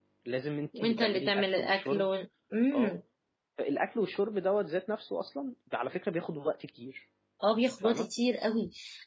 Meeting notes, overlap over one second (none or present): present